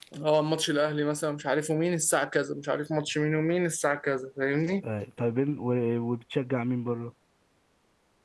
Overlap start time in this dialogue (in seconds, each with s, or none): none